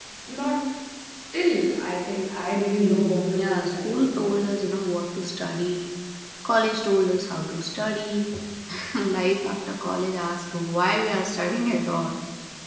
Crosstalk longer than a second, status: present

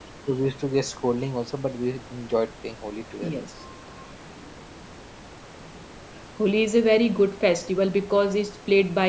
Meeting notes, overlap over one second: none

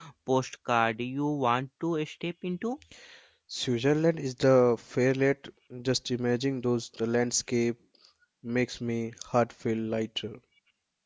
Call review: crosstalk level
none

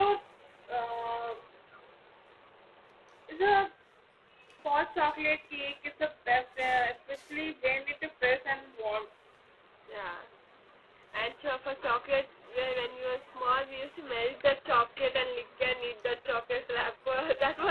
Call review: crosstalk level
none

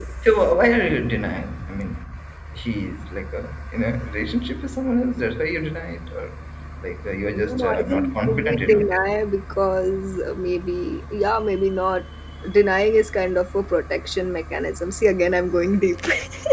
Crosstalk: present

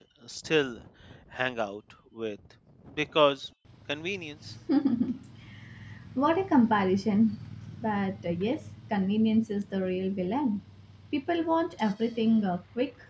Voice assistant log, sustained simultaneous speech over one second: none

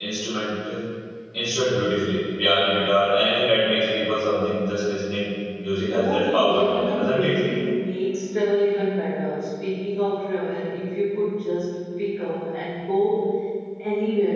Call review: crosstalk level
present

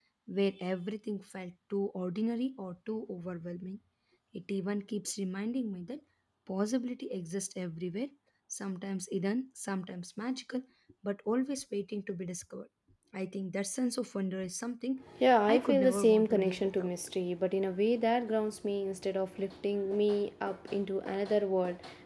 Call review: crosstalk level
present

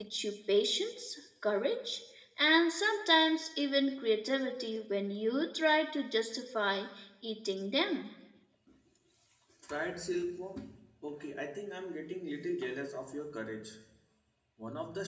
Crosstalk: none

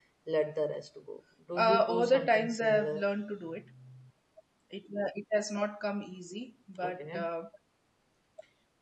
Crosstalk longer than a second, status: present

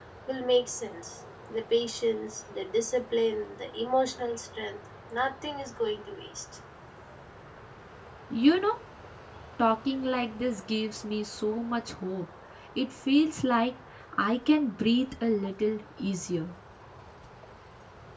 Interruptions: none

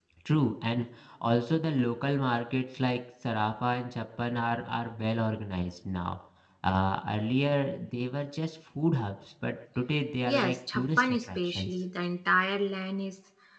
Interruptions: present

